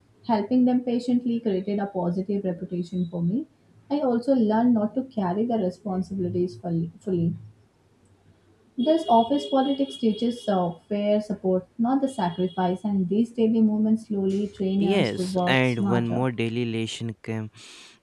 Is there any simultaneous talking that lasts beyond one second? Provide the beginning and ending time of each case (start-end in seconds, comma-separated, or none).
14.8-16.2